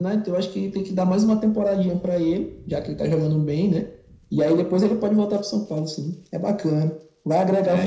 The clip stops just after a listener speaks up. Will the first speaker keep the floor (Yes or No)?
No